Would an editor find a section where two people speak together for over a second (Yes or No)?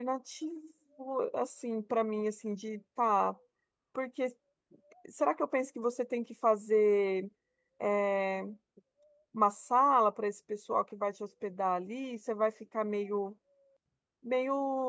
No